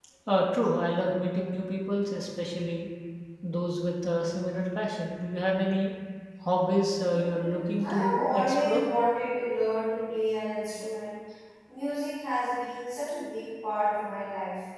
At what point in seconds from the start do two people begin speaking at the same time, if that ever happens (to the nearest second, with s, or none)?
7 s